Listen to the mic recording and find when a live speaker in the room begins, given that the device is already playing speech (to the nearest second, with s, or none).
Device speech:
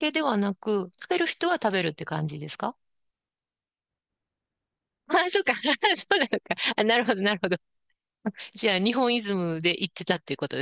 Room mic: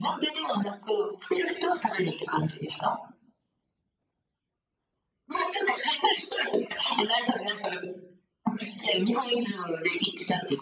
none